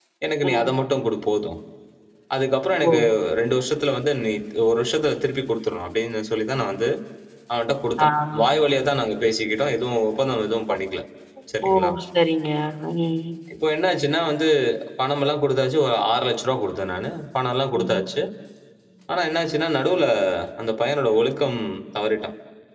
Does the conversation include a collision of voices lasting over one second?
No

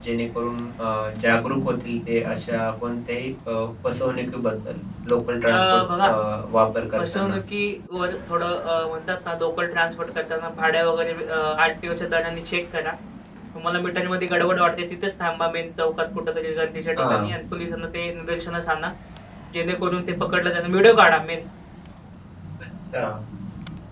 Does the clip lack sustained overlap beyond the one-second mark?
Yes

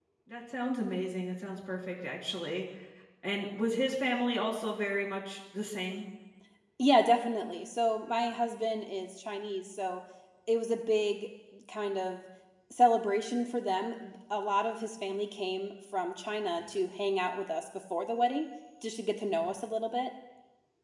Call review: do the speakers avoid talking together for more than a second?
Yes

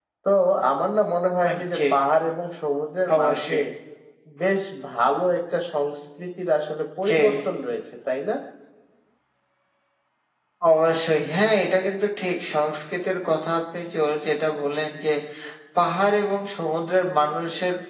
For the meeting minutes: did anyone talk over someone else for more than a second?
No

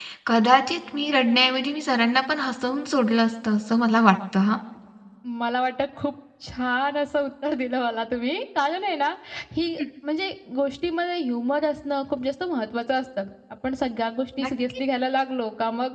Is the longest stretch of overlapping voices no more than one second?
Yes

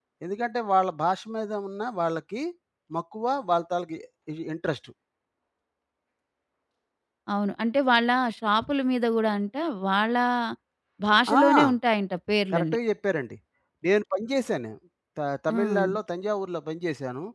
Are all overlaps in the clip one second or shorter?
Yes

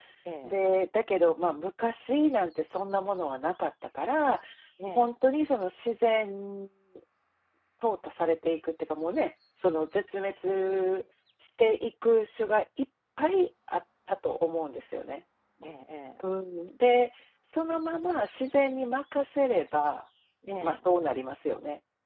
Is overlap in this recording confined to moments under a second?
Yes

